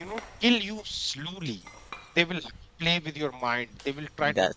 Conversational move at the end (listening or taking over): listening